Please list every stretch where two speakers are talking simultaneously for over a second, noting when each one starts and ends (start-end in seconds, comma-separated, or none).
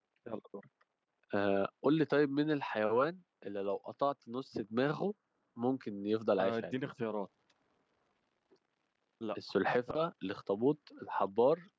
none